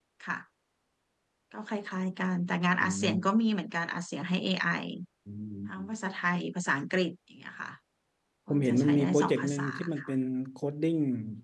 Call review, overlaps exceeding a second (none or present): present